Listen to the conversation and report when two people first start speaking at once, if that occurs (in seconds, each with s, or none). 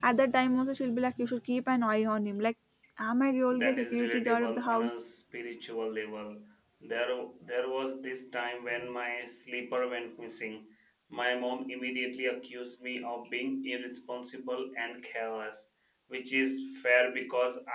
3.6 s